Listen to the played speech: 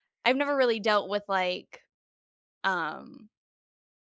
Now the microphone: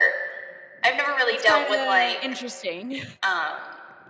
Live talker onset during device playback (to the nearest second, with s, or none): 1 s